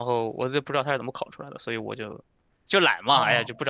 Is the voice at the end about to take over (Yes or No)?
Yes